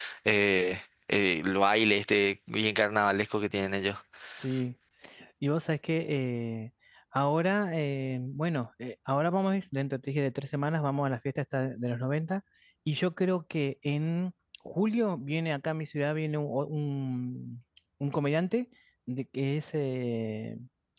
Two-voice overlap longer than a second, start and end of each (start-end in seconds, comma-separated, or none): none